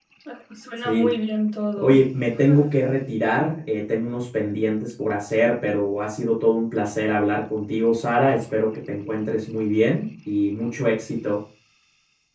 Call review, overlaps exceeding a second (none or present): none